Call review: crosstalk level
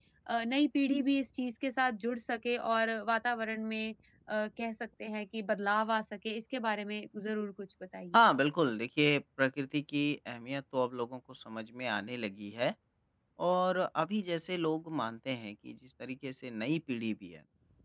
none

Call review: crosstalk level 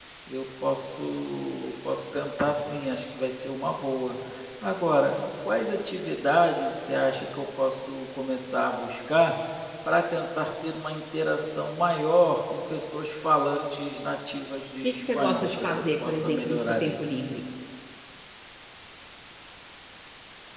present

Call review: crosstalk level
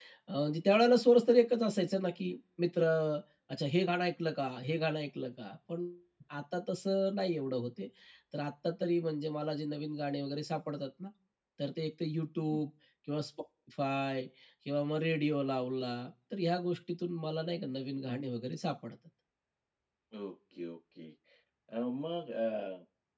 none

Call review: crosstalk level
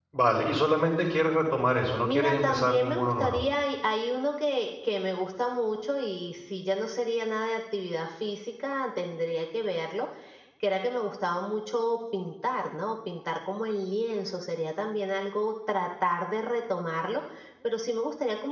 present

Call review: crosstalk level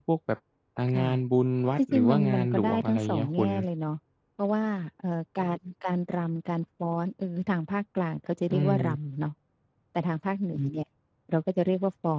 present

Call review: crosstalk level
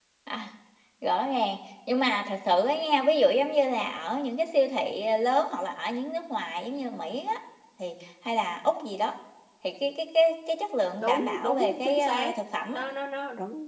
present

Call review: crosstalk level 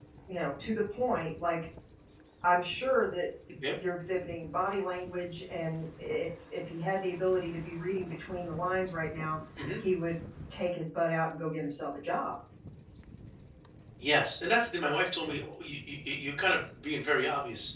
none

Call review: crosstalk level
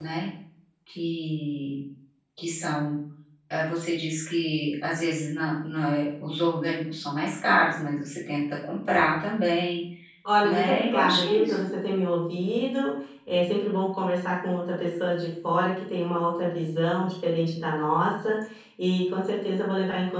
present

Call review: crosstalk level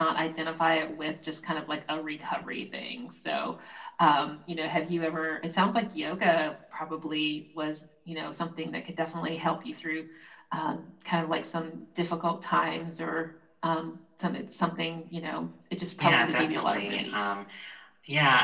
present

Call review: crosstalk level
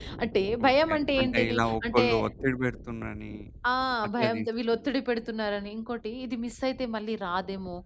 present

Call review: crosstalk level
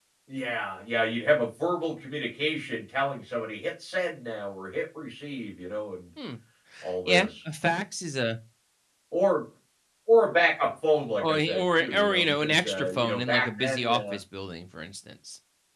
present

